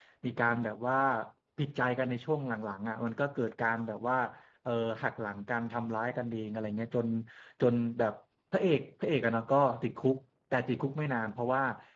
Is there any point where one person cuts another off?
No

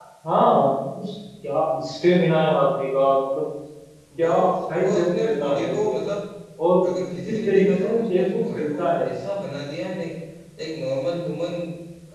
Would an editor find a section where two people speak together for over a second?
Yes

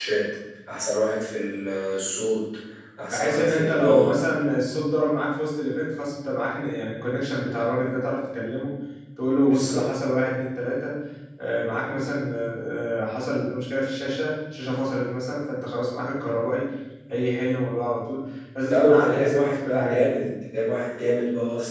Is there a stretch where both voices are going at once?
Yes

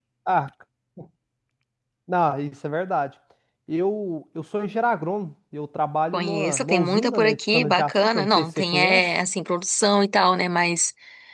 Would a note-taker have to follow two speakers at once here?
Yes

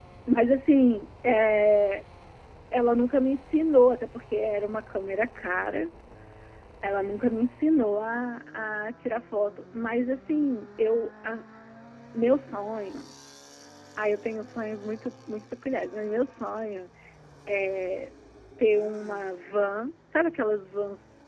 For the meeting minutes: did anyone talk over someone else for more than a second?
No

